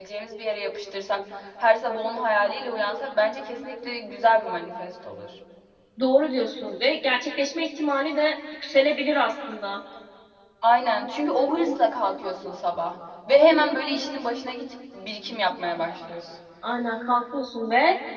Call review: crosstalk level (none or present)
none